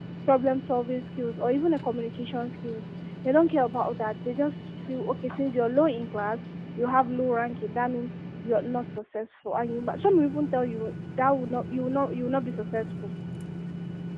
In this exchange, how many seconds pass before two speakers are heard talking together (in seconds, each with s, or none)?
none